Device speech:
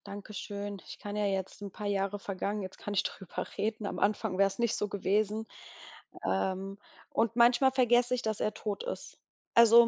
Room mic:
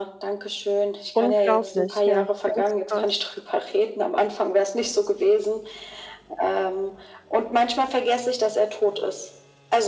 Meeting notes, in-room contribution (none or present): present